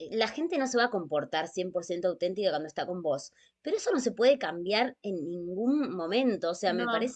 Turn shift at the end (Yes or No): No